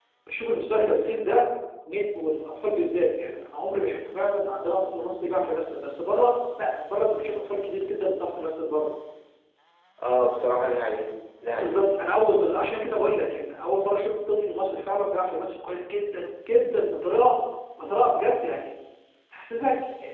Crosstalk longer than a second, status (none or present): none